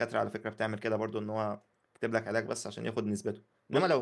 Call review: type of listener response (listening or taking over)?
listening